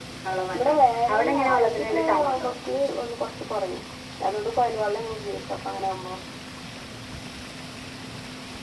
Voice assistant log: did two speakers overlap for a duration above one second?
Yes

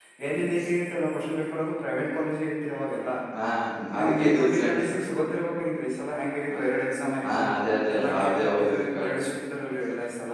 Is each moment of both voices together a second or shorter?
No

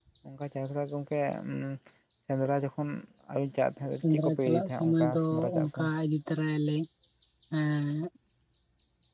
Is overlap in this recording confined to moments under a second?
No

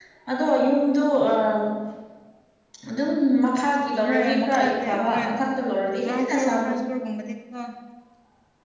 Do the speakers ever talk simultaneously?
Yes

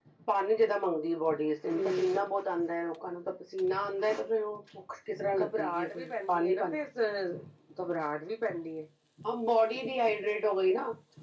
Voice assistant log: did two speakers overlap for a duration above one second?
Yes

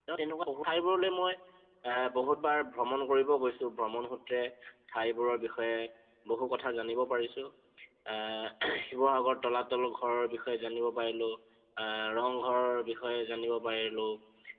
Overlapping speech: No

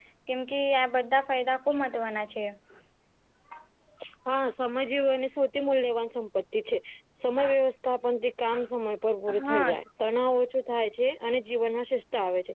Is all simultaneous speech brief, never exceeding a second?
Yes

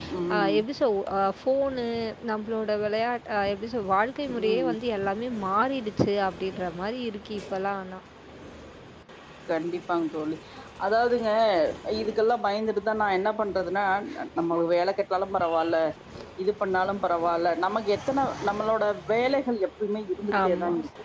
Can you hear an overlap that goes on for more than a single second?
No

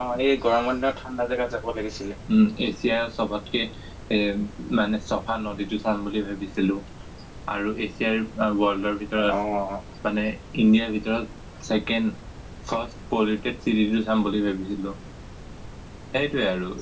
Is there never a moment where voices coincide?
Yes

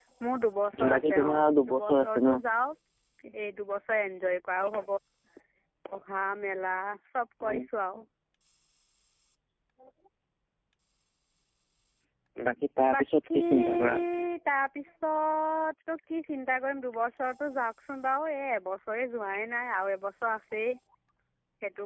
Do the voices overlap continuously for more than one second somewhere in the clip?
Yes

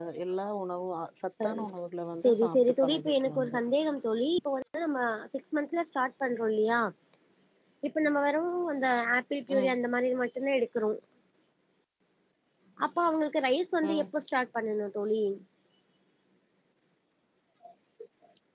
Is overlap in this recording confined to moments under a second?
No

